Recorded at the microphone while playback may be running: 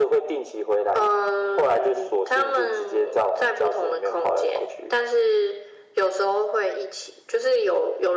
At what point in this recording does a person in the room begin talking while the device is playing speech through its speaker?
none

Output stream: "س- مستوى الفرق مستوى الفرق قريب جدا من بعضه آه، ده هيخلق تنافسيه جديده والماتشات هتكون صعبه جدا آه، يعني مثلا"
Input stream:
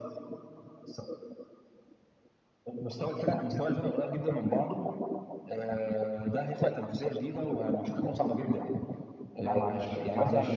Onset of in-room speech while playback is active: 9.4 s

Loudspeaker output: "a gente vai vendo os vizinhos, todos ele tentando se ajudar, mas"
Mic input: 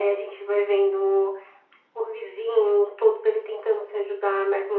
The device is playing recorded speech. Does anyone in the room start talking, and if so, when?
none

